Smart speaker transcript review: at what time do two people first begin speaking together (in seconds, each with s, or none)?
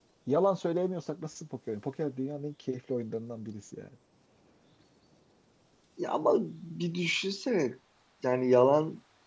none